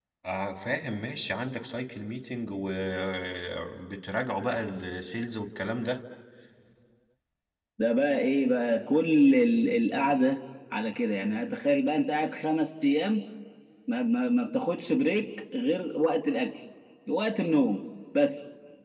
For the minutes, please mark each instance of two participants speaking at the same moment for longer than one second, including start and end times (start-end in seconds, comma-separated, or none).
none